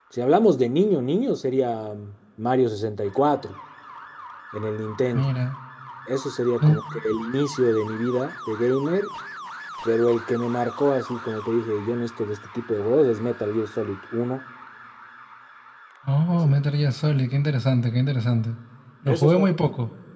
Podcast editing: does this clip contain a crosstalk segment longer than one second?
No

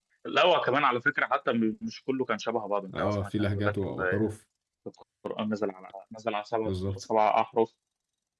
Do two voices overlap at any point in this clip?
Yes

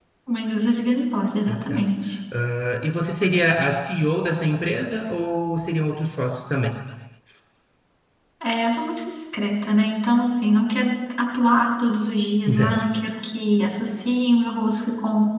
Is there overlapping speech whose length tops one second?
No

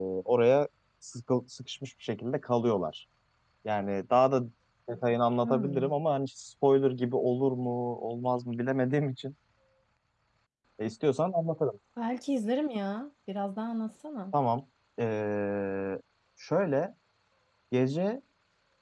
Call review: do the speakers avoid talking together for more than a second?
Yes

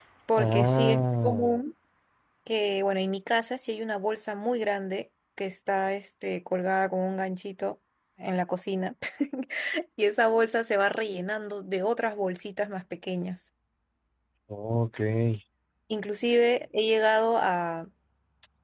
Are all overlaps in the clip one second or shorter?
No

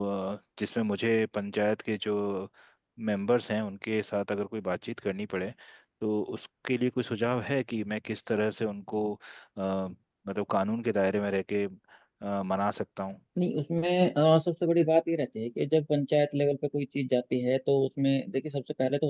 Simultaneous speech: No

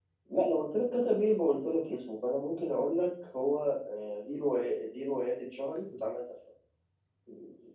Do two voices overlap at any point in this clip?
No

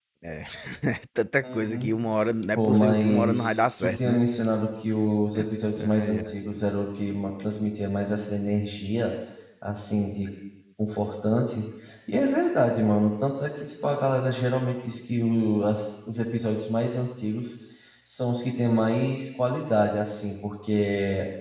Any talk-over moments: Yes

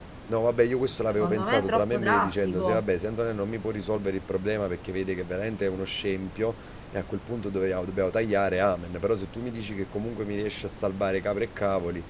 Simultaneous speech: Yes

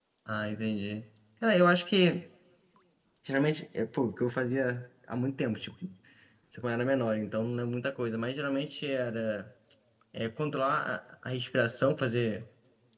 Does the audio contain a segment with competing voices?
No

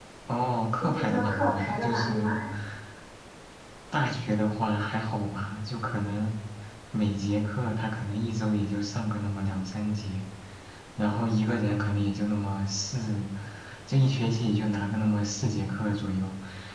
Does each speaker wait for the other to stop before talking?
No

